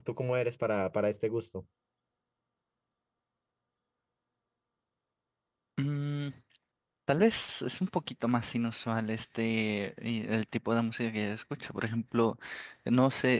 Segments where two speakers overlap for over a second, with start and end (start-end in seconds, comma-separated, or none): none